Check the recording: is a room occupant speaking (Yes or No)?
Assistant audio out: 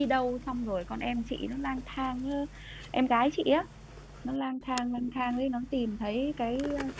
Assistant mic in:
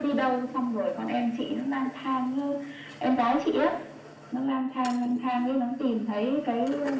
No